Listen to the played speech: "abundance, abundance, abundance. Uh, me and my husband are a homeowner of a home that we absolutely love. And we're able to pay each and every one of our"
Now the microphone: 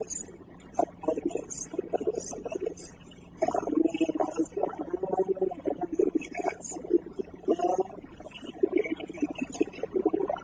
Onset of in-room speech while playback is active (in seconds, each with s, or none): none